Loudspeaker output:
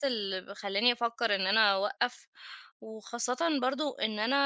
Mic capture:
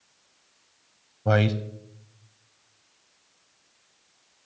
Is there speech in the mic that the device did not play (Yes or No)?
Yes